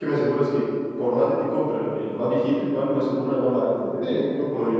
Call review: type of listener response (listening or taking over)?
taking over